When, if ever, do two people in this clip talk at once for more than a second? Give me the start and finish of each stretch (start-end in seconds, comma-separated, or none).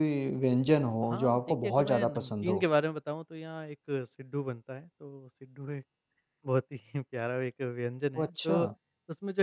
1.1-2.6